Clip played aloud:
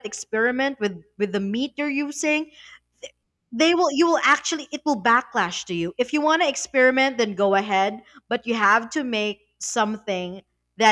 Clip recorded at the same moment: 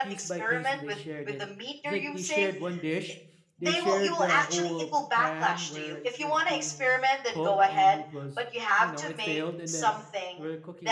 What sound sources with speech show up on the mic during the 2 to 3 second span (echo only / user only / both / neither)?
both